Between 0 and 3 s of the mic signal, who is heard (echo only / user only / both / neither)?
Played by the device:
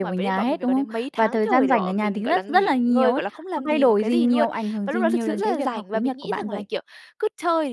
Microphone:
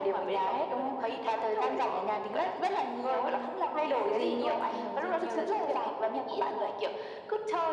echo only